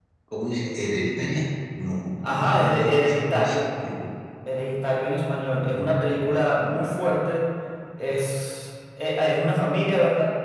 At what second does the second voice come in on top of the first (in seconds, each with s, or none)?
2.3 s